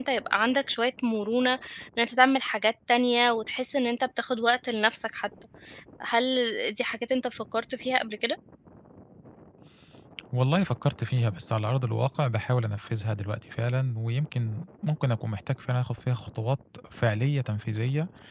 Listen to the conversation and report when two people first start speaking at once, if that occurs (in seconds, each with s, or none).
none